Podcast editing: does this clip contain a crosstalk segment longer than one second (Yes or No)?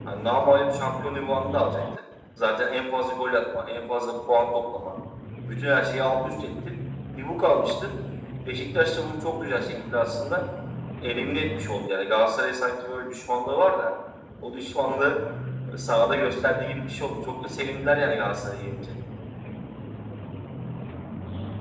No